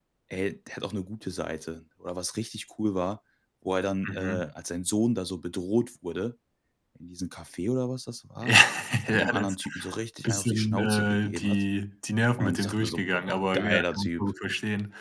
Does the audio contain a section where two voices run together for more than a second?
Yes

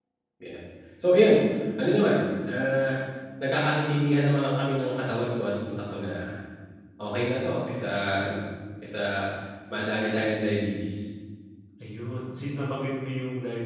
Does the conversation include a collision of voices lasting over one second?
No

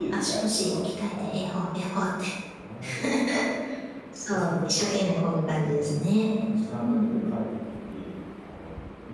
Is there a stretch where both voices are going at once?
Yes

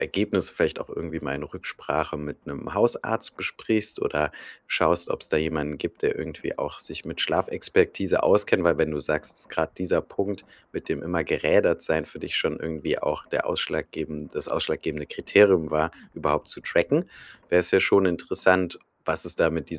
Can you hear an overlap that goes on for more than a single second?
No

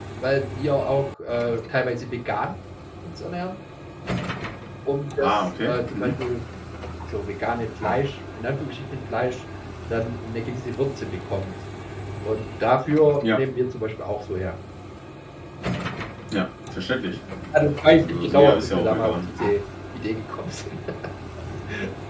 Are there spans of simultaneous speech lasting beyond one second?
Yes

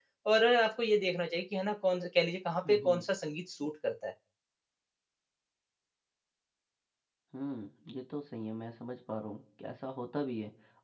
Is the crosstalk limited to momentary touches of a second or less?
Yes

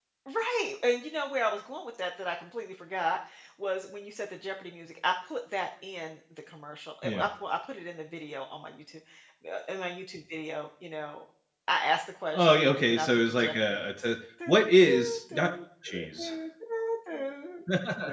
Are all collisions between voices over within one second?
No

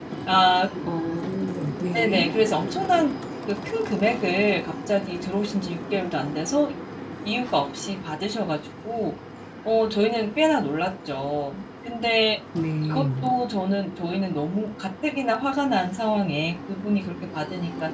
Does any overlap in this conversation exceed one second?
No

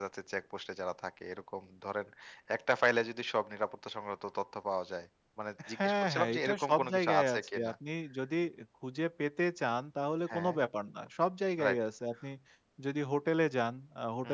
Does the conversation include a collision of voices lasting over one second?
Yes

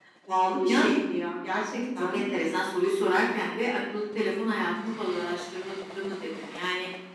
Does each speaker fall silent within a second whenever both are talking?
Yes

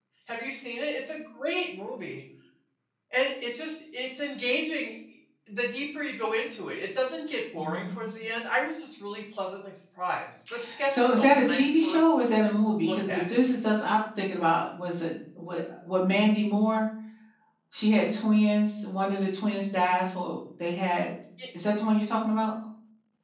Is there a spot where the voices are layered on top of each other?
Yes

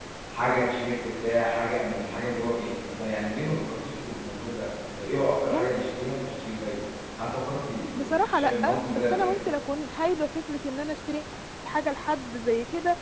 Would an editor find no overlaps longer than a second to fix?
No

